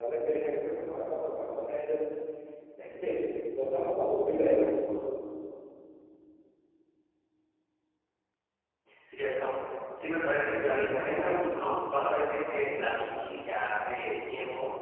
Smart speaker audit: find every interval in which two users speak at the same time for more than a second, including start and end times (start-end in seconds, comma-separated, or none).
none